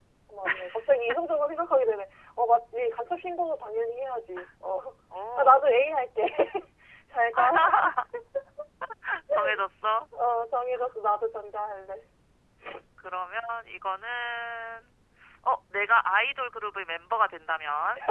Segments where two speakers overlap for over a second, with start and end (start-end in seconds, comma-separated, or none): none